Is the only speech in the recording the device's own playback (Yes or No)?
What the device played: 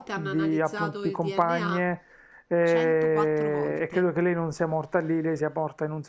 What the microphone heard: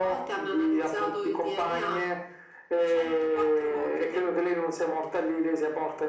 Yes